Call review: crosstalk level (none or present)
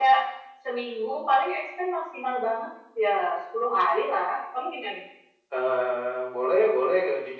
none